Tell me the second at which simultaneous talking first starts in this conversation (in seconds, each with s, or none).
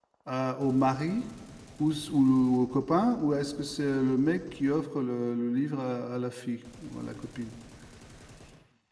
none